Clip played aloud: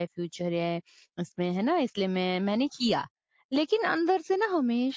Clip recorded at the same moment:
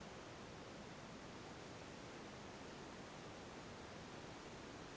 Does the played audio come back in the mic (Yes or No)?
No